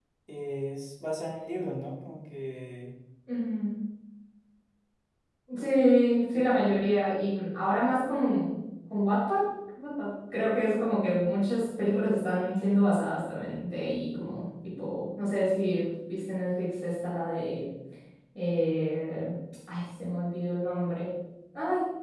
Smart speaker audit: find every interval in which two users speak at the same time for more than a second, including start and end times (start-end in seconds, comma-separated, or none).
none